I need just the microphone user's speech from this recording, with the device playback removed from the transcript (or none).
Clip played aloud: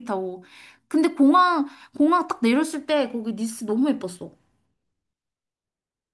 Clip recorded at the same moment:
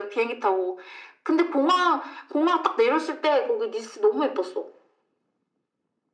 none